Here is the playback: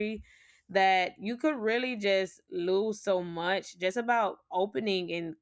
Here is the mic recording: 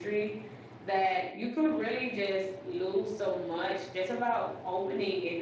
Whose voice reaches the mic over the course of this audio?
echo only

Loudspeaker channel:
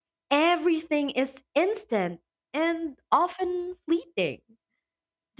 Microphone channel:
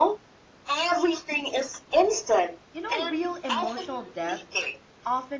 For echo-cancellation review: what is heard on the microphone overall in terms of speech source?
both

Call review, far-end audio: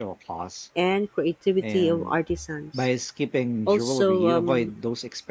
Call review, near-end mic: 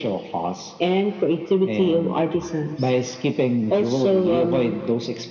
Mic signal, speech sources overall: echo only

